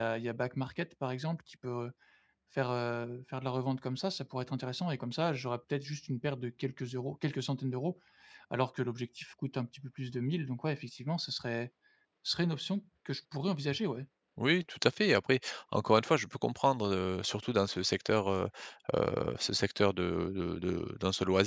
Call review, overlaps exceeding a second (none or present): none